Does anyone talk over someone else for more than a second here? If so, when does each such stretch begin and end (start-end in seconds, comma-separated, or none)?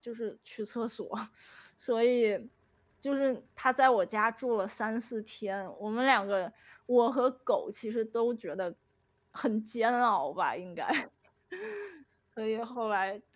none